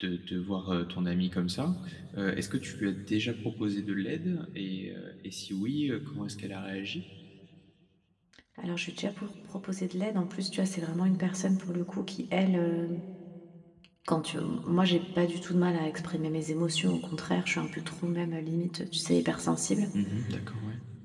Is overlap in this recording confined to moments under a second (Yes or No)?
Yes